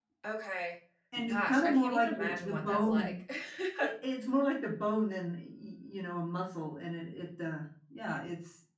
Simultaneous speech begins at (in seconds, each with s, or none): 1.3 s